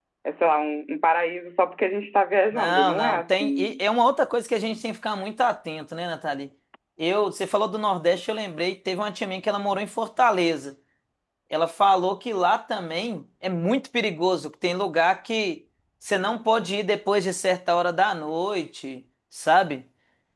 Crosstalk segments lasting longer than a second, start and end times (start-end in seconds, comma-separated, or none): 2.5-3.8